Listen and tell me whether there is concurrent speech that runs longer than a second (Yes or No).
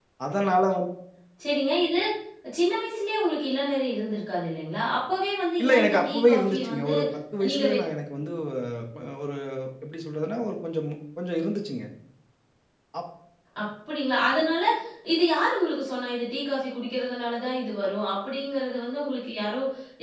Yes